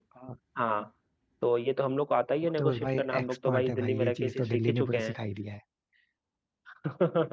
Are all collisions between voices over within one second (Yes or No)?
No